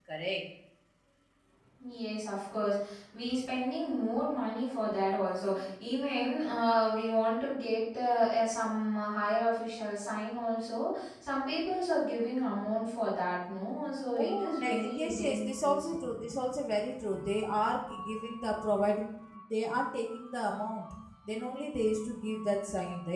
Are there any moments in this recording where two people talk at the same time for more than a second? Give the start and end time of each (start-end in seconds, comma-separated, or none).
14.2-15.9